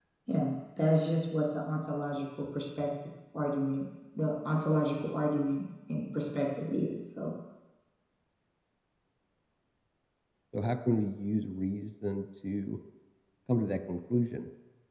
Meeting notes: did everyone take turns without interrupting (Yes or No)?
Yes